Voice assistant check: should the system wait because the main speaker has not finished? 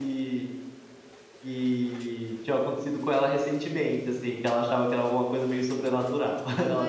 No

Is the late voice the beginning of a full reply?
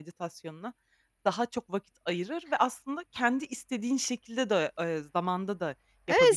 Yes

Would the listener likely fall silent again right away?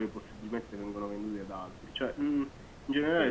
Yes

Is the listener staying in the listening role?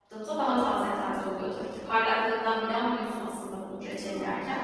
No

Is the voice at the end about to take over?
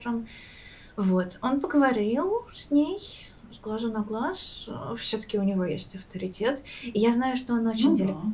No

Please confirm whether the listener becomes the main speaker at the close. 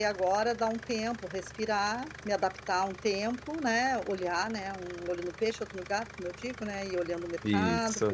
No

